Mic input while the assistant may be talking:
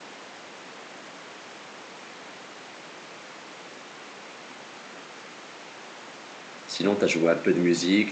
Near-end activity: present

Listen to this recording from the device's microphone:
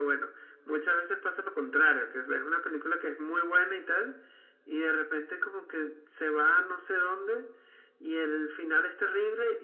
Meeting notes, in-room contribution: none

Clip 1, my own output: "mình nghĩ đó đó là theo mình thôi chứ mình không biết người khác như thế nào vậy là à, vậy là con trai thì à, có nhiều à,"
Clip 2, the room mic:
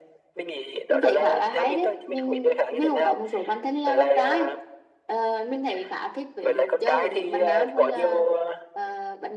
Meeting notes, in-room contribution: present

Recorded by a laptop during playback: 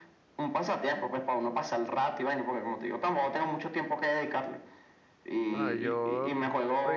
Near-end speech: present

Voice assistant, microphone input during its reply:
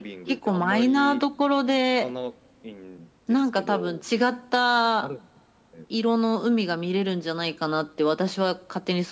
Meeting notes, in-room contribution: none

